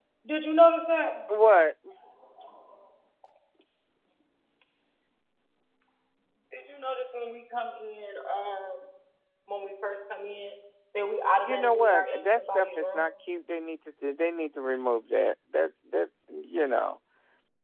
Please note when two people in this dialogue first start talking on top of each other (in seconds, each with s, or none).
11.4 s